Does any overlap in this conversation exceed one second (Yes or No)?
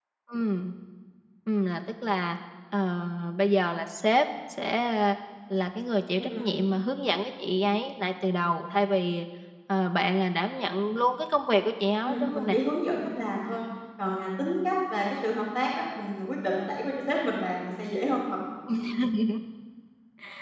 No